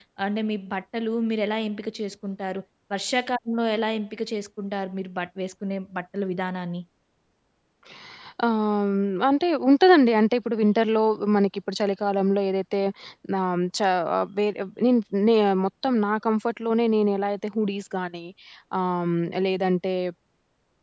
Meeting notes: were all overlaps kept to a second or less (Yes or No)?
Yes